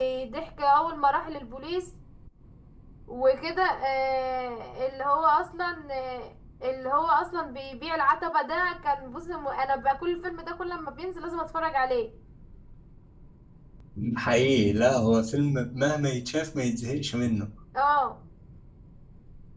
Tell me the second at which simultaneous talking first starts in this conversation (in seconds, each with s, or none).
none